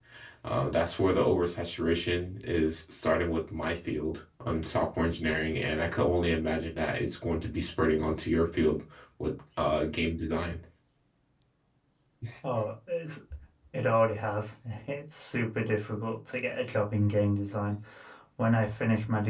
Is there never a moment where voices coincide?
Yes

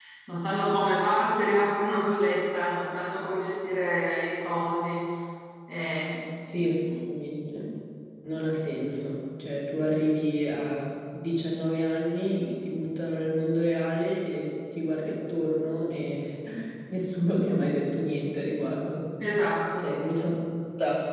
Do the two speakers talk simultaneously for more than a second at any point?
No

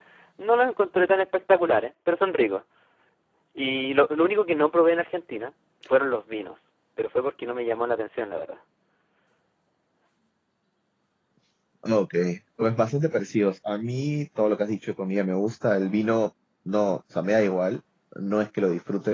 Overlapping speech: No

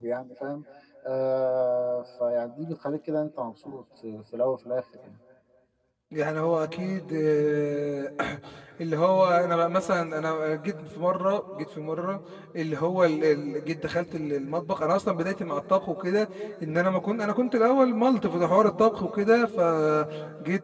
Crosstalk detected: No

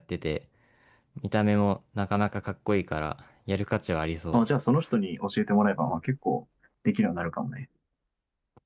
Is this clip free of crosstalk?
Yes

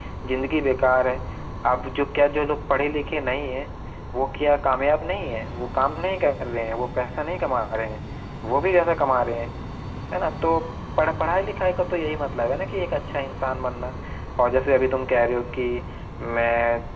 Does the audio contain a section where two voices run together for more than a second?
No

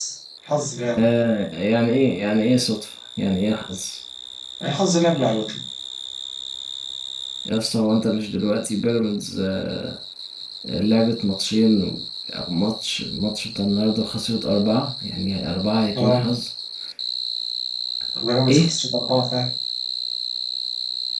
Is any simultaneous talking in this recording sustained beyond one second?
No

